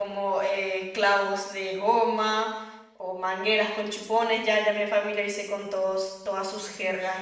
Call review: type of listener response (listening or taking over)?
listening